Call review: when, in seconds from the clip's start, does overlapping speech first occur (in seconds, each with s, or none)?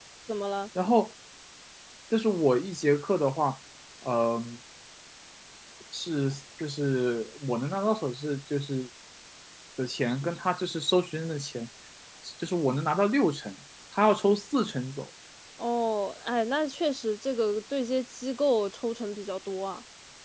none